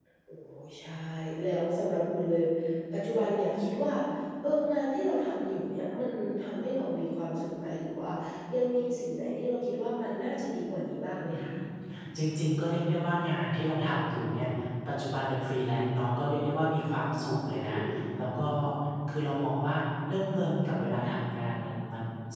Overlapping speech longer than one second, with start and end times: none

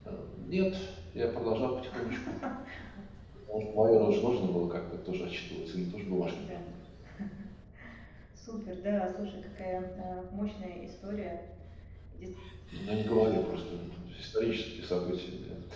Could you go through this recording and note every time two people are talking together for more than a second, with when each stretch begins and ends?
none

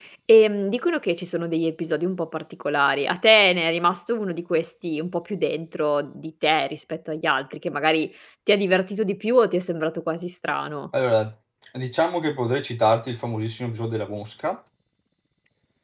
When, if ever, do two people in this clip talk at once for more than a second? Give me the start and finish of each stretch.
none

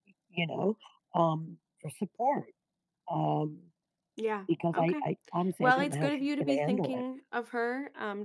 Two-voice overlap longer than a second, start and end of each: 5.6-7.0

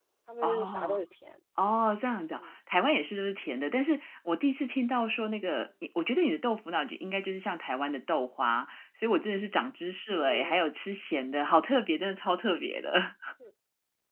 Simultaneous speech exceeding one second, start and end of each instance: none

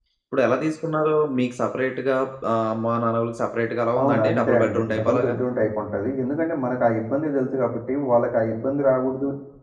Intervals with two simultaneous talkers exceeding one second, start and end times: 4.0-5.3

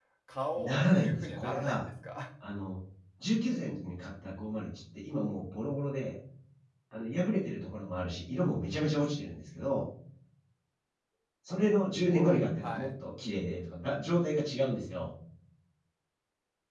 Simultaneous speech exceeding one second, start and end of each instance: 0.6-1.8

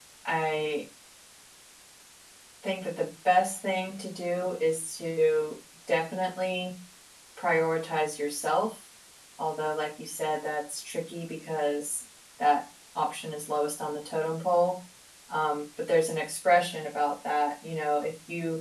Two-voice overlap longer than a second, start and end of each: none

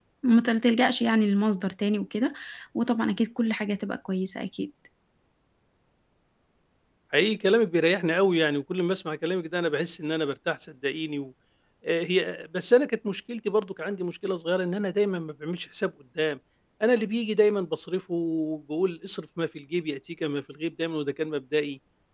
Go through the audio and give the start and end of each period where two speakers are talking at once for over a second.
none

